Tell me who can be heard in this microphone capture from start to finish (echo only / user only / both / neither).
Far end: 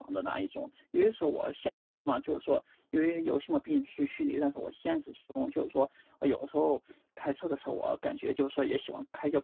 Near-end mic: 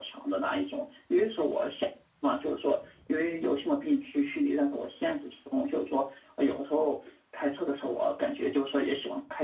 echo only